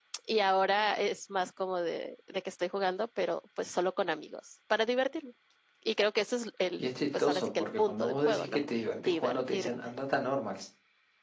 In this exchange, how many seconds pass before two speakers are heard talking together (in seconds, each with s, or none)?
6.8 s